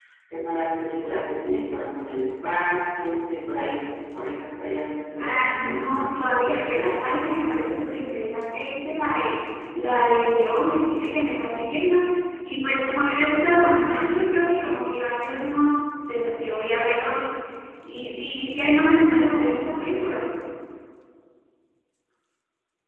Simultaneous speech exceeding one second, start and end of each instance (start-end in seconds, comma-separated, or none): 5.2-6.9